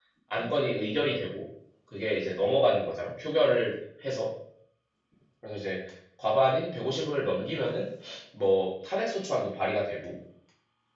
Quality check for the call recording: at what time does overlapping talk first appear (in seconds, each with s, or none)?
none